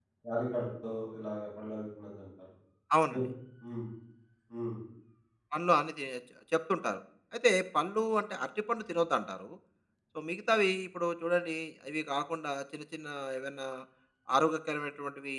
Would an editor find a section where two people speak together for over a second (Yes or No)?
No